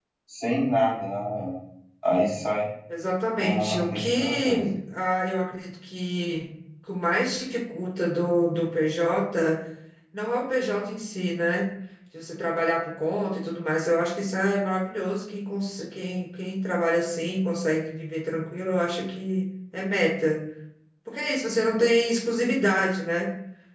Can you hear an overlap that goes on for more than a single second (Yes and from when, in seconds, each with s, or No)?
Yes, from 3.4 s